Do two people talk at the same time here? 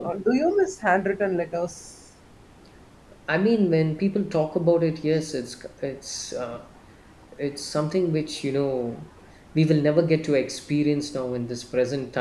No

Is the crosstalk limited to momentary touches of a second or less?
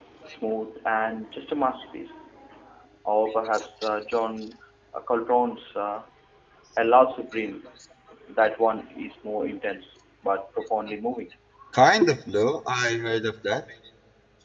Yes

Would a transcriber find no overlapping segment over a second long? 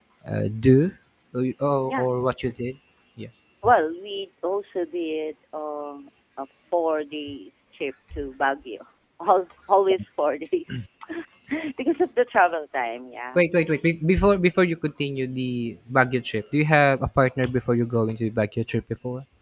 Yes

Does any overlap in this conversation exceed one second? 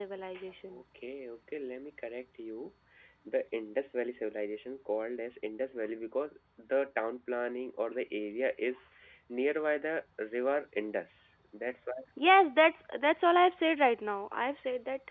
No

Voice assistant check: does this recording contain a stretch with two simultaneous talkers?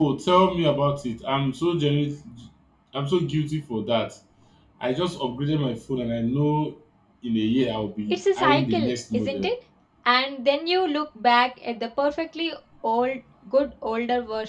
Yes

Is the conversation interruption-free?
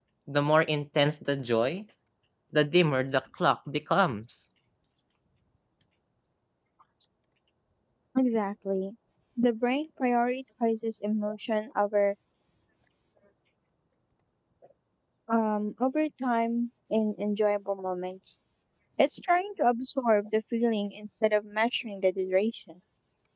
Yes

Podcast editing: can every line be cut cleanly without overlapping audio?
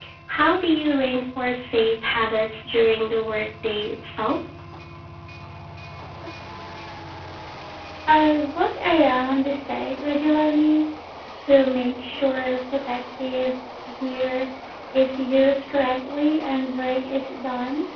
Yes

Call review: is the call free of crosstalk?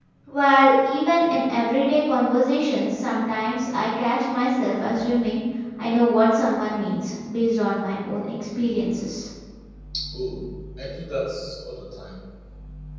Yes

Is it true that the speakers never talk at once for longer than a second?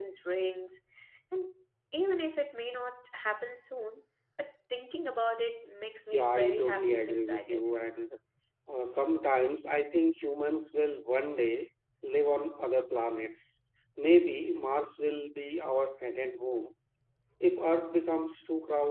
No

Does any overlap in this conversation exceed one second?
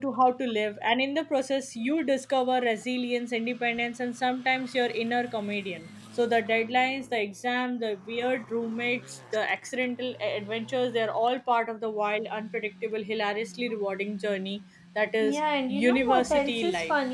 Yes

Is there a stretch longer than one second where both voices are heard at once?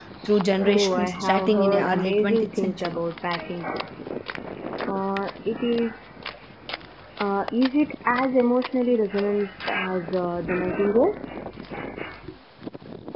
Yes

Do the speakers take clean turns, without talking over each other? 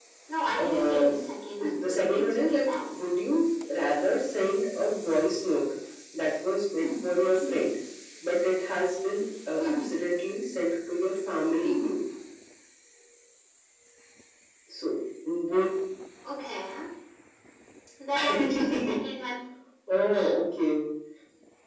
No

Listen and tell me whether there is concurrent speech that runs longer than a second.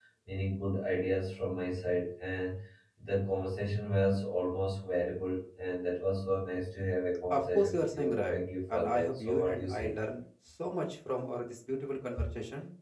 Yes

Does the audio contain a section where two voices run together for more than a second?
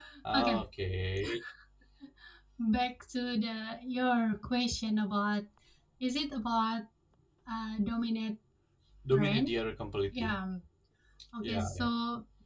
No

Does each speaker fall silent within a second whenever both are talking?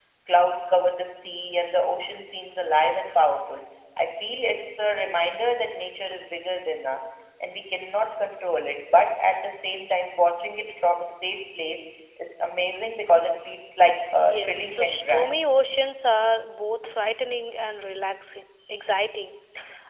No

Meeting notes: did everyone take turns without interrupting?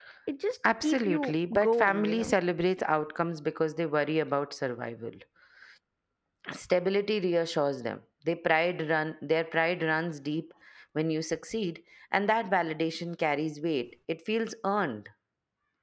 No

